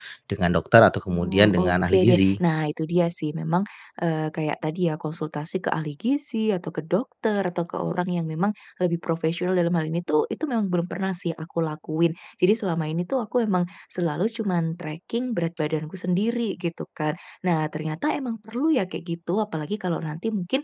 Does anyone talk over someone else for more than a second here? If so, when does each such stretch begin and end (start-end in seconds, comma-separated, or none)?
1.1-2.3